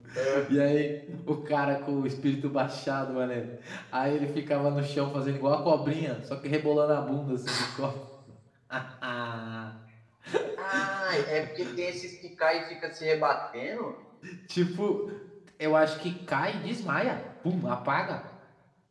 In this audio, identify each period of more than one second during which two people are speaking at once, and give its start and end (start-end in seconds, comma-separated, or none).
none